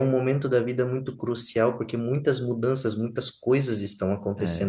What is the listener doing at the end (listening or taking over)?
taking over